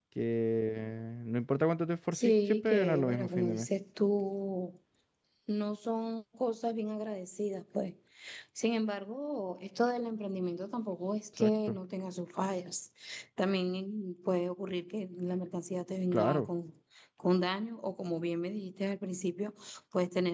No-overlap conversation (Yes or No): No